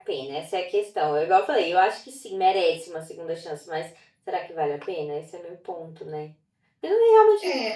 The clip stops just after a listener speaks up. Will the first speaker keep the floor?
No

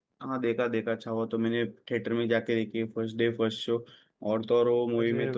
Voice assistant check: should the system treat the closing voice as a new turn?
No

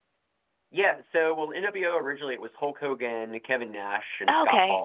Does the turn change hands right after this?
No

